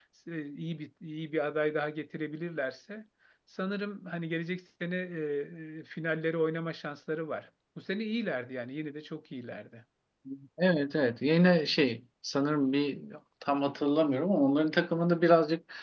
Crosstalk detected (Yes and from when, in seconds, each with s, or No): No